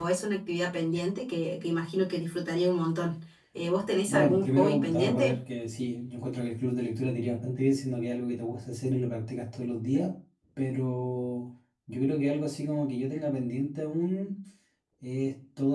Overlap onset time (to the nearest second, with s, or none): 4 s